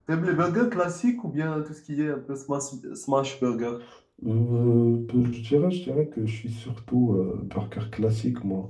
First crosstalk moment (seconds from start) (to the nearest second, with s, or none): none